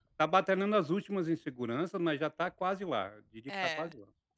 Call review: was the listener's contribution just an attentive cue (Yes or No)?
No